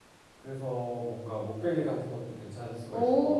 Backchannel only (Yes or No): No